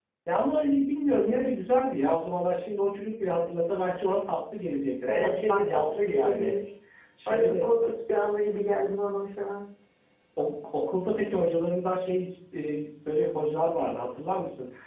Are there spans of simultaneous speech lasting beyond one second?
Yes, from 5.1 s

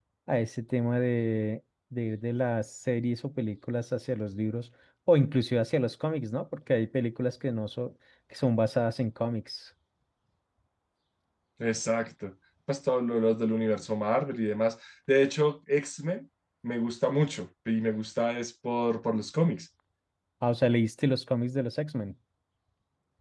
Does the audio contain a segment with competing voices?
No

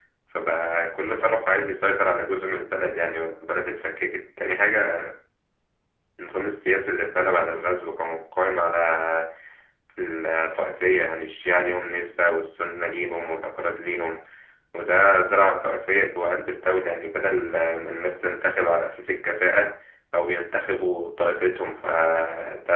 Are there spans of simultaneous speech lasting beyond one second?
No

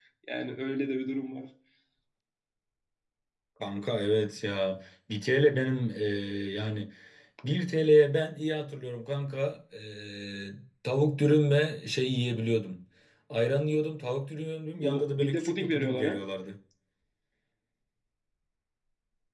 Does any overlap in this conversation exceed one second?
Yes, from 14.8 s

